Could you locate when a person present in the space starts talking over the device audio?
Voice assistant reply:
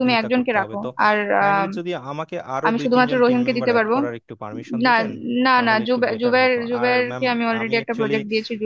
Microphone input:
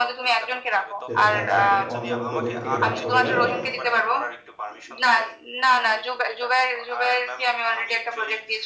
1.1 s

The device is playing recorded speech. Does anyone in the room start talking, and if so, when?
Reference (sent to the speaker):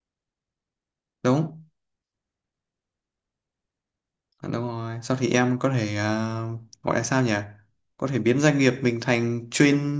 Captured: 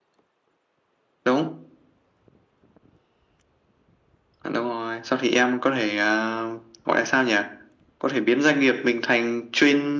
none

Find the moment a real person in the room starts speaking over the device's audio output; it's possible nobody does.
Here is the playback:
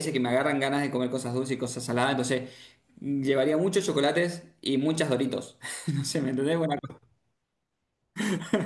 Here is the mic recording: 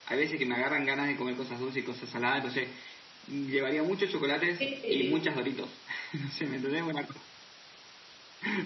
4.6 s

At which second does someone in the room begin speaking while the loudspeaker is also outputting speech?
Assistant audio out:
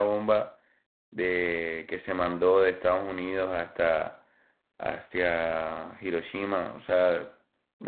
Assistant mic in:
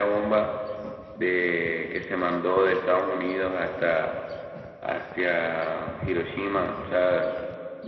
none

